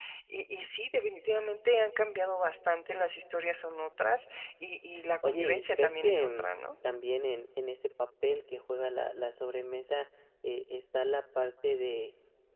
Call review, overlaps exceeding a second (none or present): present